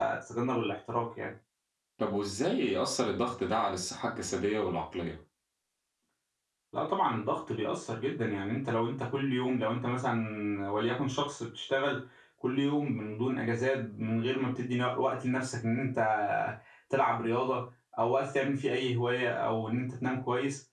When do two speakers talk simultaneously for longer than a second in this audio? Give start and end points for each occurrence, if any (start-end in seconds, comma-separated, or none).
none